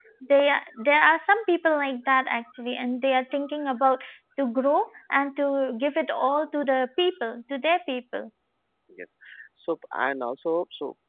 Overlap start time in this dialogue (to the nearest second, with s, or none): none